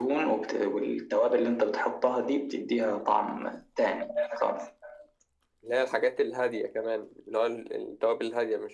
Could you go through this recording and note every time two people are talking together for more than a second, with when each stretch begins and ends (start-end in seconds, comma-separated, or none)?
none